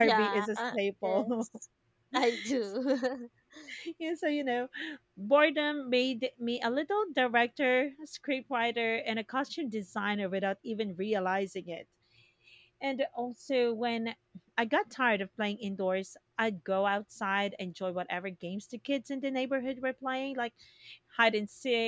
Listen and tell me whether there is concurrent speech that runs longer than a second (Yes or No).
Yes